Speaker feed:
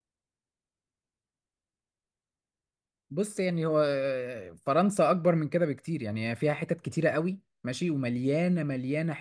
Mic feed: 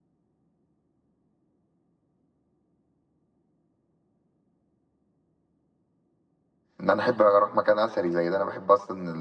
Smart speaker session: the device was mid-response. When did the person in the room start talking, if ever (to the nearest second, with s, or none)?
7 s